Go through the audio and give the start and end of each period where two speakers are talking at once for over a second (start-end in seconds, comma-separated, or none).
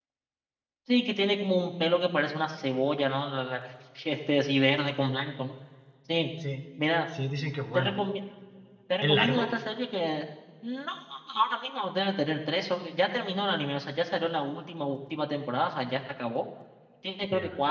none